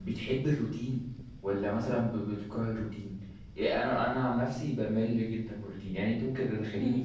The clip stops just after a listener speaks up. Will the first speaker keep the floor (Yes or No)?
Yes